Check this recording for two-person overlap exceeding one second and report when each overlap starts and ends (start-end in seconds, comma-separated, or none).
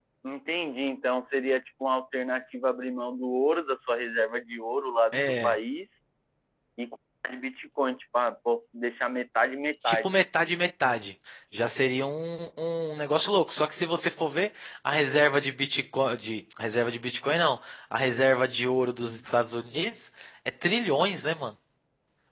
none